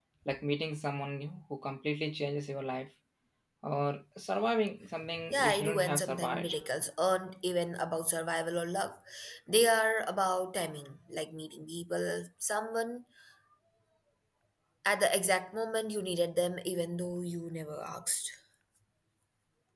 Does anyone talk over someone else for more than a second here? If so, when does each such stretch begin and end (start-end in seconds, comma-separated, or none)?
5.3-6.5